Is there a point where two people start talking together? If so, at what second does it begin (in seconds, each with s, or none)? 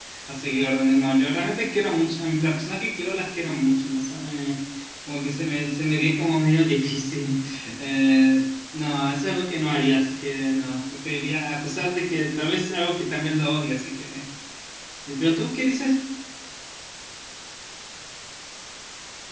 none